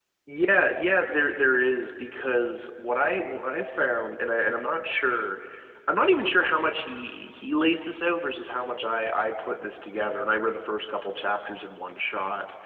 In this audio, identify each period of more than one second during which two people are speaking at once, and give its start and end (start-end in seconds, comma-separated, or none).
none